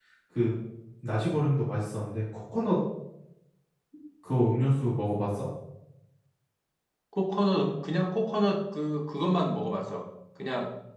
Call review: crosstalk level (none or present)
none